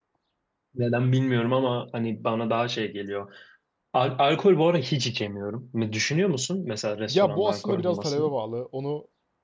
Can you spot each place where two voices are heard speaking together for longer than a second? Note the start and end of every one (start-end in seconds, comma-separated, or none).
7.1-8.3